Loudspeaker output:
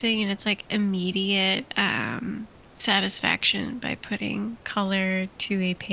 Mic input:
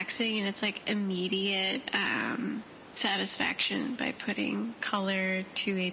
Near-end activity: none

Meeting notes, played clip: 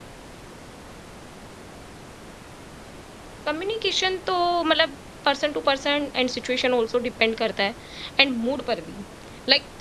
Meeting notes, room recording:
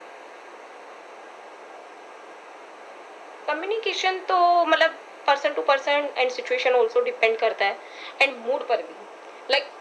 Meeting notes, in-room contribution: none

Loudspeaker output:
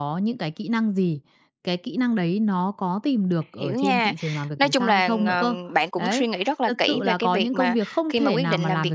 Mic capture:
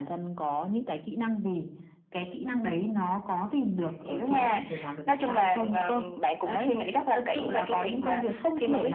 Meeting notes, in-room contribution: none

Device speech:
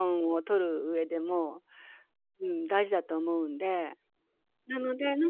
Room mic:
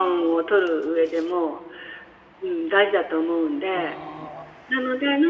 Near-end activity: present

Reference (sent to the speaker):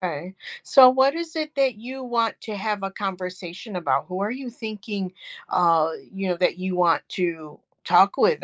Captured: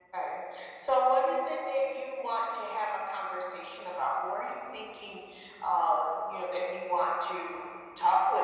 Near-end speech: none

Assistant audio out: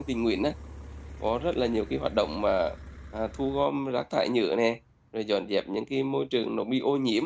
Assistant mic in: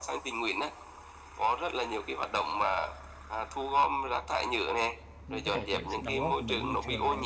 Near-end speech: present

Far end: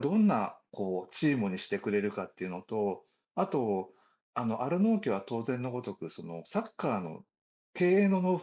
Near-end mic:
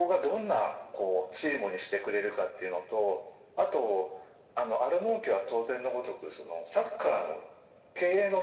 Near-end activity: none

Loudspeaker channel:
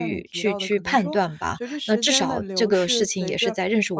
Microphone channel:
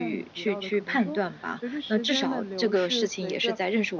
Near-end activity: none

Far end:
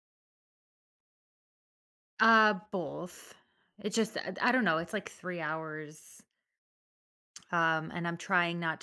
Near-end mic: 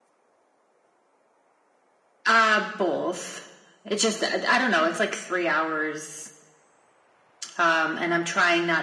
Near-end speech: none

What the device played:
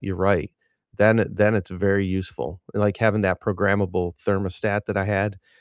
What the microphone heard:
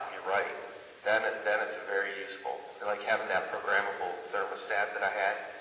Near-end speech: none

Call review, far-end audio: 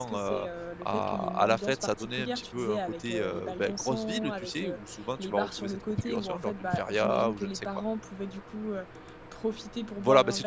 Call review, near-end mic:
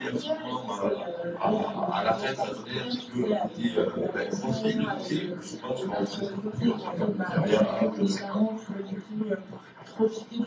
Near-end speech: none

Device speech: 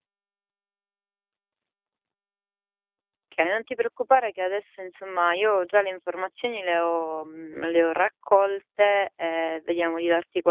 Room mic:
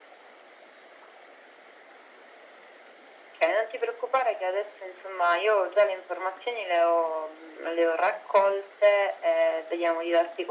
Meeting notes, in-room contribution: none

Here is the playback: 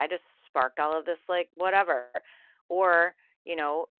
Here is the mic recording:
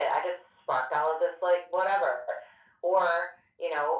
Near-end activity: none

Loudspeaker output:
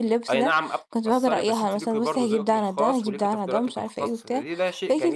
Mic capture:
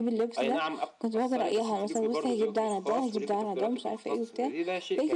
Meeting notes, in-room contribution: none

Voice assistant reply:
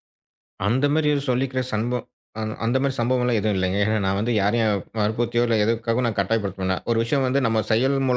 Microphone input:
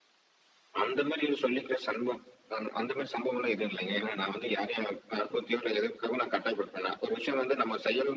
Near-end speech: none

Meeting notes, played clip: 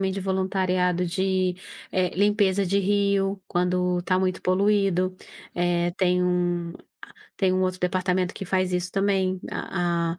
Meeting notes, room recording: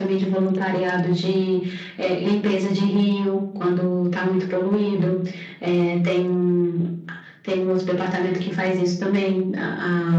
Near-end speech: none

